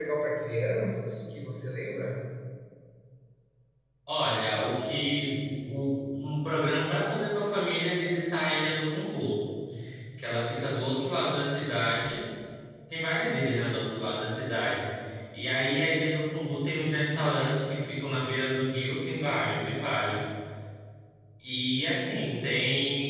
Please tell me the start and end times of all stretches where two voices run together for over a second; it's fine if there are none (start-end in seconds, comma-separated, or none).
none